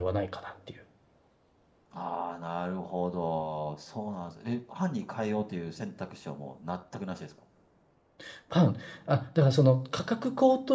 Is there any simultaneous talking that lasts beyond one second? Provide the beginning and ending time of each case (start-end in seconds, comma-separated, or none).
none